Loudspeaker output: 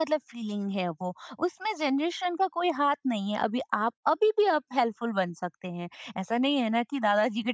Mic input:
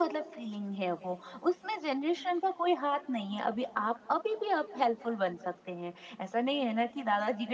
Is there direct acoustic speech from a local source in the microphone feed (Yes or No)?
No